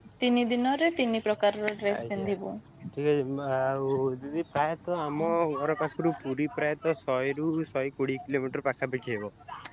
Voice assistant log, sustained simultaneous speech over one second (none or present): none